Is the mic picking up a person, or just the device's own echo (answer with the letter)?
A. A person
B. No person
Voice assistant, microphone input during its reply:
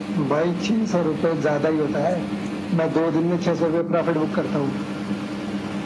B